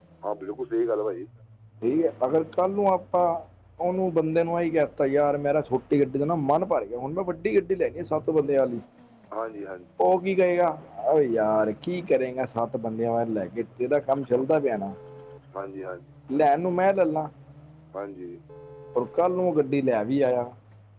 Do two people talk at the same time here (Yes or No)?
No